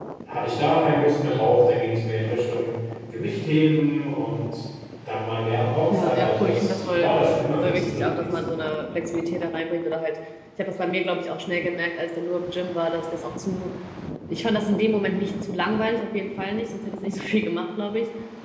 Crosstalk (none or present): present